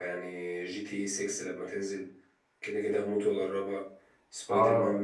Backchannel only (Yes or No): No